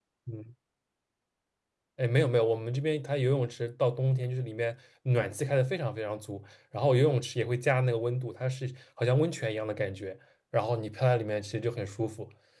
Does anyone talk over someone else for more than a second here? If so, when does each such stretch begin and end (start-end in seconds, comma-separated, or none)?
none